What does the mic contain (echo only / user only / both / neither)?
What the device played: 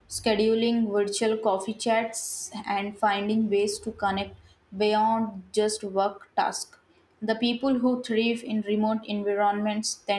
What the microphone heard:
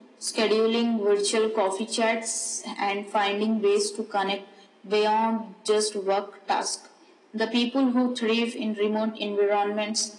echo only